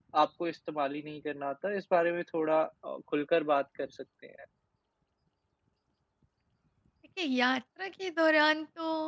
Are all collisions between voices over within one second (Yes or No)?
Yes